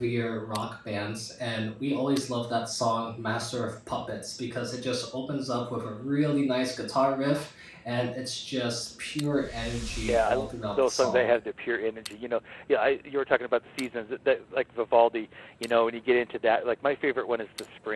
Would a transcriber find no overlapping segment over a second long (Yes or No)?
No